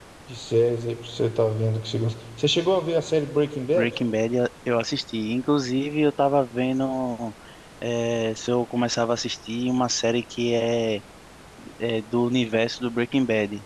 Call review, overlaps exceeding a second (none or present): none